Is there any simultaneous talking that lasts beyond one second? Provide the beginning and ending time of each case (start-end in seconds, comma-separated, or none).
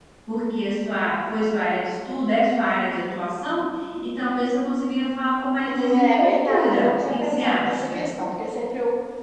5.7-8.1